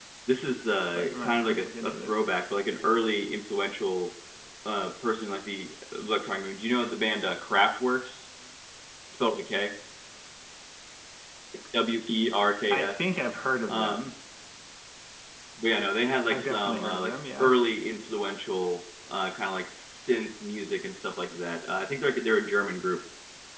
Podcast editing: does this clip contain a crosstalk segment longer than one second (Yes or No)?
Yes